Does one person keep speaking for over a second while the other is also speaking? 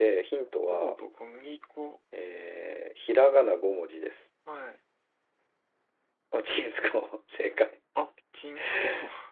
No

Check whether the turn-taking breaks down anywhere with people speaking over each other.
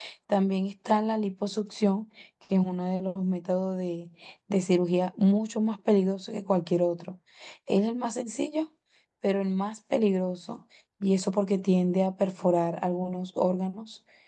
No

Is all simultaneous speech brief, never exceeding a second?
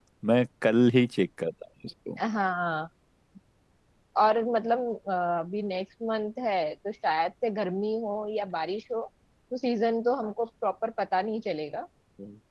Yes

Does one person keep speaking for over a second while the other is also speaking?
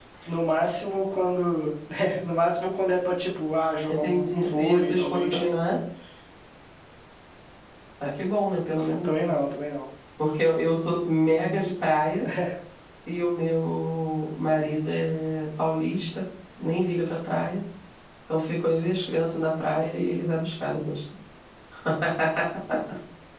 Yes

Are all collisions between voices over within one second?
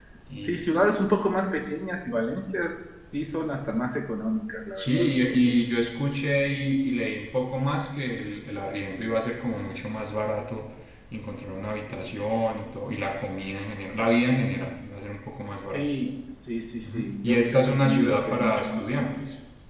No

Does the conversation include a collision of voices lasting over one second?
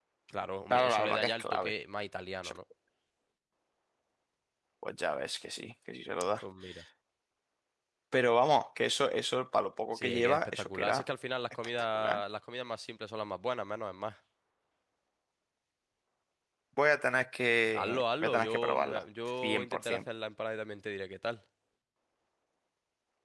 Yes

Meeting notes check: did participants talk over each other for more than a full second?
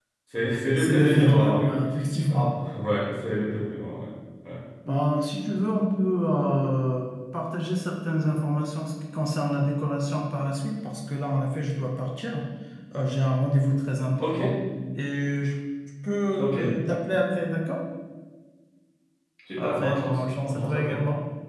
Yes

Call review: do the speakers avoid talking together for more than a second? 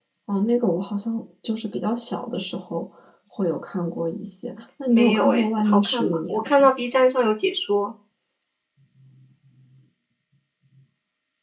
No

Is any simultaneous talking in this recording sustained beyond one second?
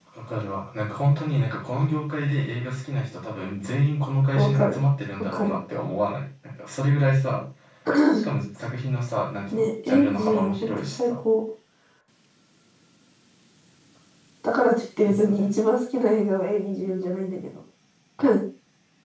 Yes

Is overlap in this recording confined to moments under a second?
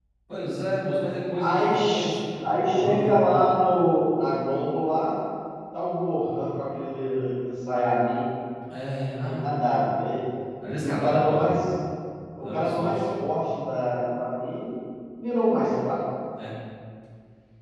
No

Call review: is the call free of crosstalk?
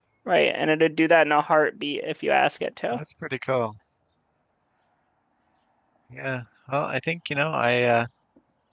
Yes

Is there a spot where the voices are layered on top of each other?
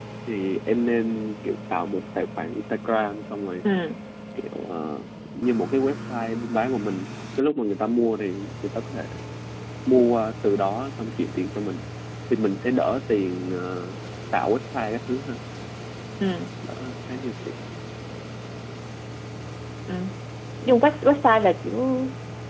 No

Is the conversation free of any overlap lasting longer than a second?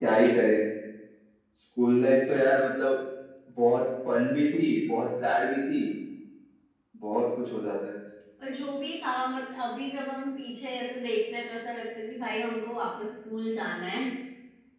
Yes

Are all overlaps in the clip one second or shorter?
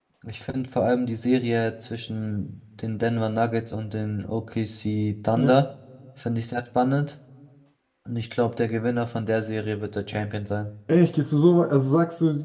Yes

